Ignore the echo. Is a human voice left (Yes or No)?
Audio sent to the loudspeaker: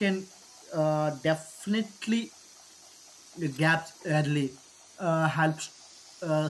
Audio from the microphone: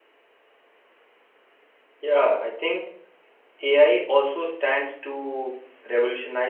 Yes